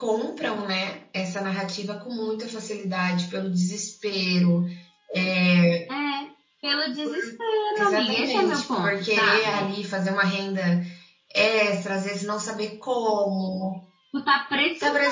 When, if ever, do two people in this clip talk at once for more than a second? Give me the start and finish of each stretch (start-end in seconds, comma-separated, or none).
7.8-9.7